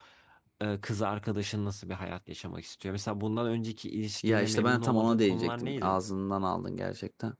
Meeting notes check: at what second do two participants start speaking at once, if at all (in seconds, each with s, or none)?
4.2 s